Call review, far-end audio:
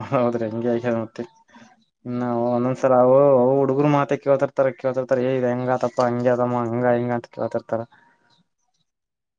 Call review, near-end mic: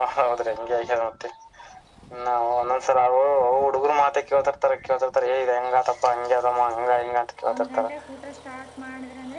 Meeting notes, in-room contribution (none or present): present